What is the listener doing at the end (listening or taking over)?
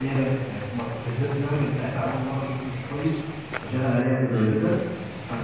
listening